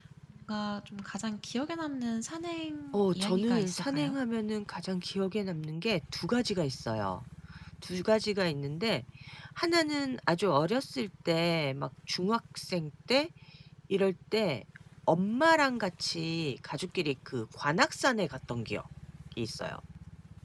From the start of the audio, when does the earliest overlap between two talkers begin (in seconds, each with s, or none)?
2.9 s